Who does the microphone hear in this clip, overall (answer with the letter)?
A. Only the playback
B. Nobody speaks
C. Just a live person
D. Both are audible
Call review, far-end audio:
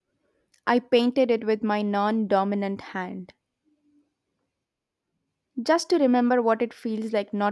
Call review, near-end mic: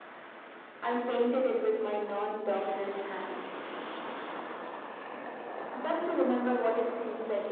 A